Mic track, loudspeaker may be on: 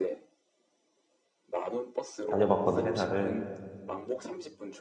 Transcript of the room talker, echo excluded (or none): 다녀봤거든, 회사를.